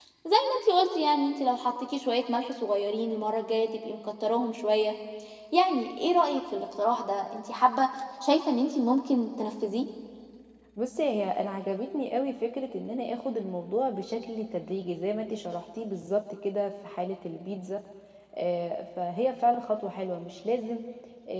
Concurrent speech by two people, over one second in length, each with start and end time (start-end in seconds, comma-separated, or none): none